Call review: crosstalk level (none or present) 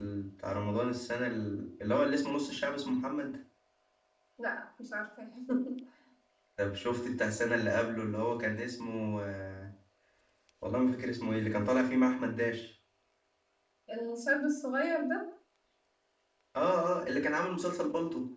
none